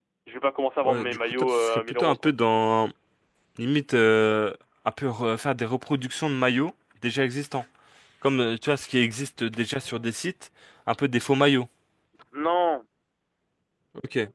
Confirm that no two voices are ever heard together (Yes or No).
No